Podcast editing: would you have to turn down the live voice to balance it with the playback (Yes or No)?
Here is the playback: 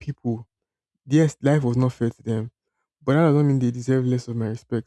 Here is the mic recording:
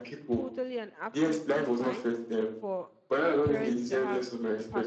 No